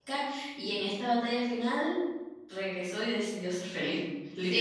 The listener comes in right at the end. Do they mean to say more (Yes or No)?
Yes